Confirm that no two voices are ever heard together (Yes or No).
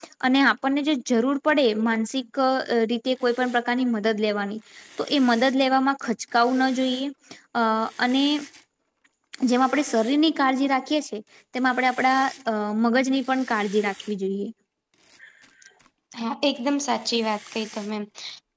Yes